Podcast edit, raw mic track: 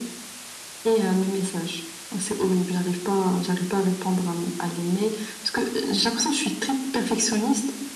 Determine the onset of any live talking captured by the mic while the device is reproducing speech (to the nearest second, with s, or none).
none